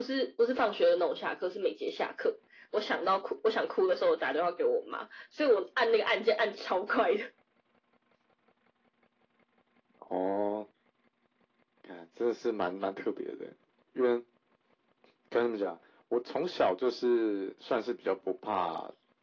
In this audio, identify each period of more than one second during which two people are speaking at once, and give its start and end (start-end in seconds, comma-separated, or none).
none